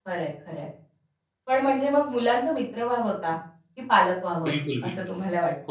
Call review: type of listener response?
taking over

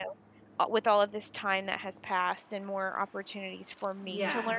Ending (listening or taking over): listening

